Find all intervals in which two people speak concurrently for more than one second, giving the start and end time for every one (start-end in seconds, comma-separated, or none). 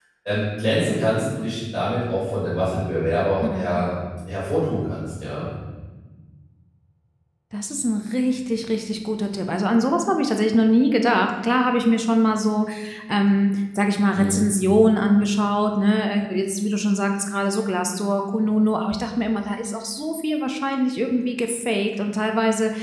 none